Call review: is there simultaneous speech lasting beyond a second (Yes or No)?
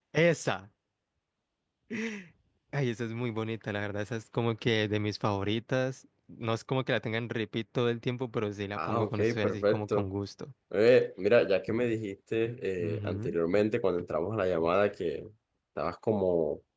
Yes